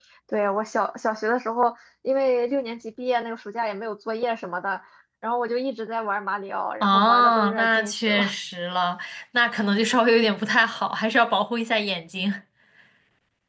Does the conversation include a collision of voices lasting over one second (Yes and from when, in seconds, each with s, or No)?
Yes, from 6.8 s